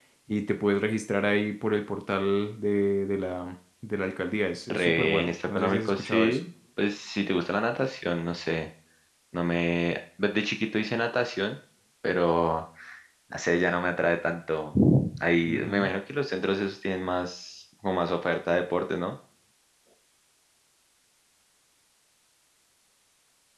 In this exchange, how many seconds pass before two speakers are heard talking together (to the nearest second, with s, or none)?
5 s